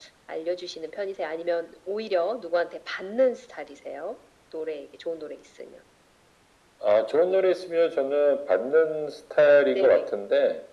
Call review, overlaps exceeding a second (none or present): none